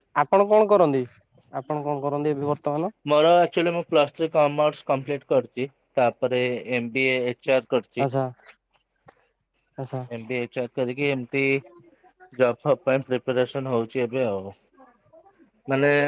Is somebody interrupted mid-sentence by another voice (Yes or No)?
No